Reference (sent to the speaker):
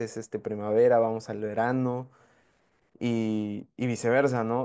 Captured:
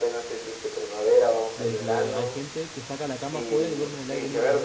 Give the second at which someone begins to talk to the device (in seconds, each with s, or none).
1.5 s